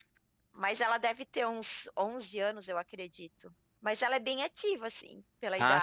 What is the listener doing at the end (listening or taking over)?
taking over